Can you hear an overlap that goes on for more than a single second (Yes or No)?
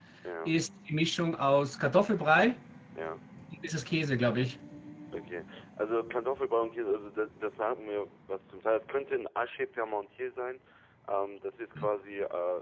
No